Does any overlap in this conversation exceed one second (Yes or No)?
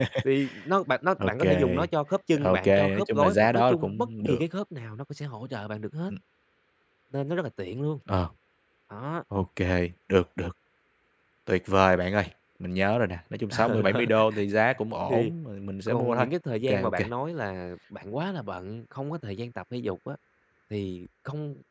Yes